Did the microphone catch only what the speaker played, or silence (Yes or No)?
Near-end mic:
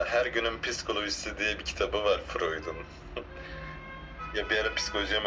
Yes